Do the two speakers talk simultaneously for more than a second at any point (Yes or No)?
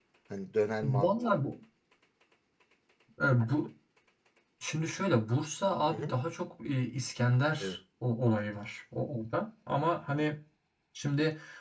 No